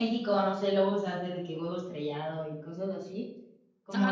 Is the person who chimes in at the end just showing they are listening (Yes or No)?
No